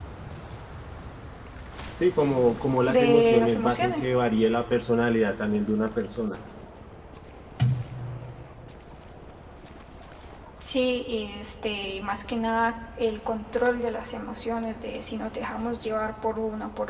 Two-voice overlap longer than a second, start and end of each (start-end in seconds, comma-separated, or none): 2.8-4.1